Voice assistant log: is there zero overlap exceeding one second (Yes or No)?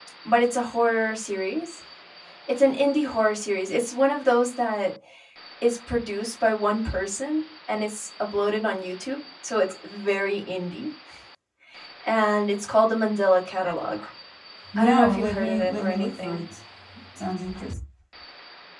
No